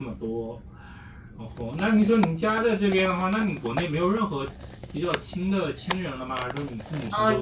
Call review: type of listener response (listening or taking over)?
taking over